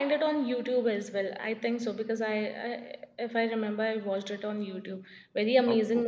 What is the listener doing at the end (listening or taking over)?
listening